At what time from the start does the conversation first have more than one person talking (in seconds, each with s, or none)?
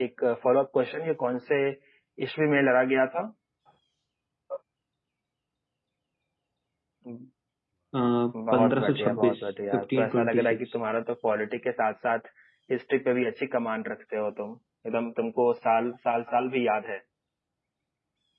8.5 s